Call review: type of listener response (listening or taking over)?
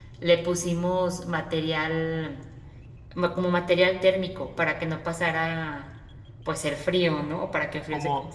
taking over